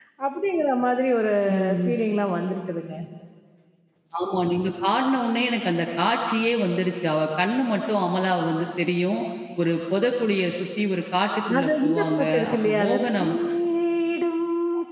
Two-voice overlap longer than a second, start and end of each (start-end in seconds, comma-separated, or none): 11.6-13.3